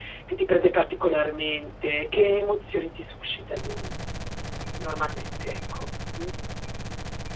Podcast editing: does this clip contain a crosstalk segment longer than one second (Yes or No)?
No